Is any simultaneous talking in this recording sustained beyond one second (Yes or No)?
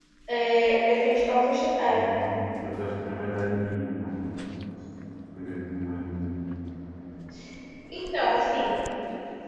No